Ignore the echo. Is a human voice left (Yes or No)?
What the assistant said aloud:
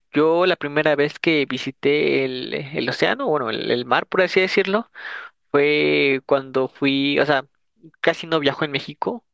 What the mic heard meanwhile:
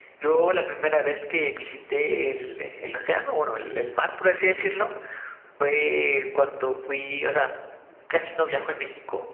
No